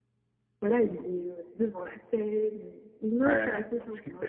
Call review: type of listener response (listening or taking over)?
taking over